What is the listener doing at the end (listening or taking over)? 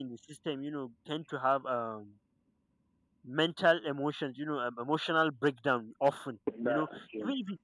listening